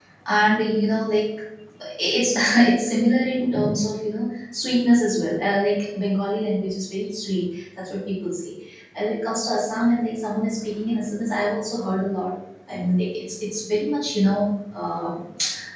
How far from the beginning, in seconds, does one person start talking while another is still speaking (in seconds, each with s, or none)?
none